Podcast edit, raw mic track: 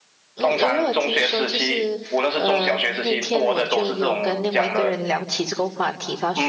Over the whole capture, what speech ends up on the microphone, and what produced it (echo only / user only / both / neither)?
both